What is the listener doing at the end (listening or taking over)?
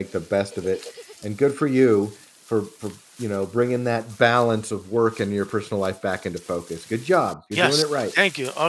taking over